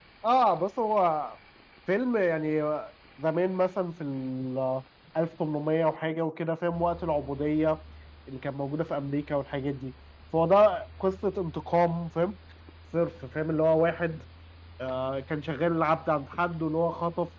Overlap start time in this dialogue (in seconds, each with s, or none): none